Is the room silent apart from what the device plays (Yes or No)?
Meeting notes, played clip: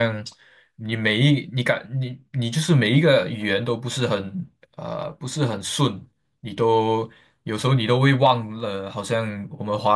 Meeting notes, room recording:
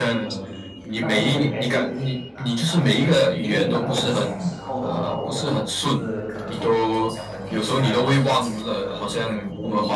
No